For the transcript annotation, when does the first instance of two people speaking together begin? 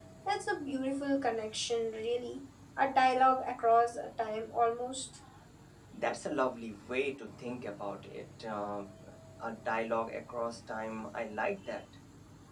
none

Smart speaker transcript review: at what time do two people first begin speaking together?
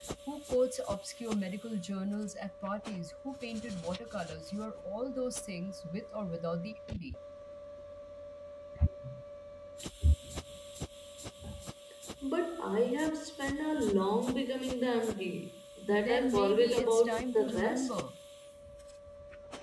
15.9 s

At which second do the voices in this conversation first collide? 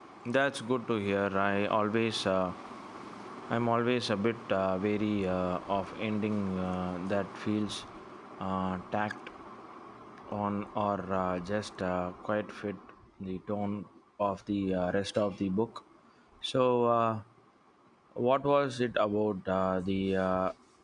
none

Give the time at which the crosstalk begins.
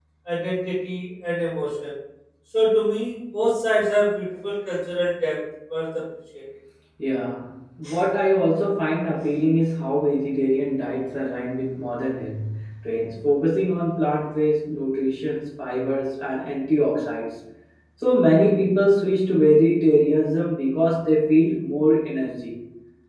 none

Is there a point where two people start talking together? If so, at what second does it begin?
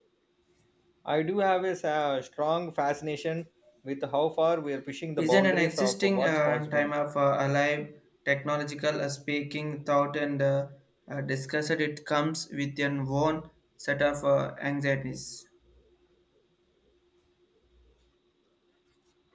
5.2 s

